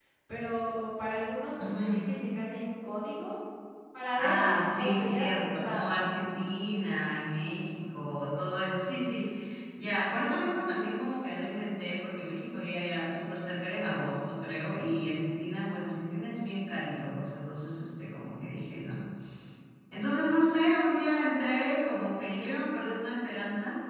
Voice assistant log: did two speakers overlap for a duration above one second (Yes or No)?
Yes